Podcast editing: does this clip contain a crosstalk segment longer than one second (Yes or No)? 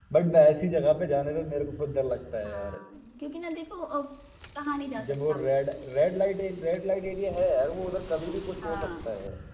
No